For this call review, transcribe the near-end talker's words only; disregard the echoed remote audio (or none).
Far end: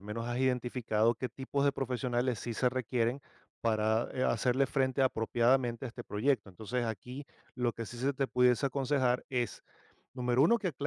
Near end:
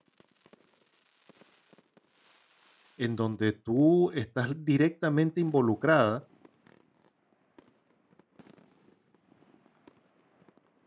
en donde tú estás directamente involucrada